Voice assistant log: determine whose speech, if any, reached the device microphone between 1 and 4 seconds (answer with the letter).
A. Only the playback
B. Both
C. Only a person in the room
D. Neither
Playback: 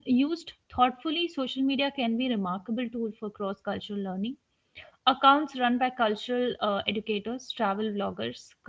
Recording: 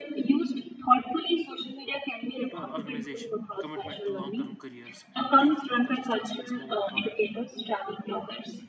B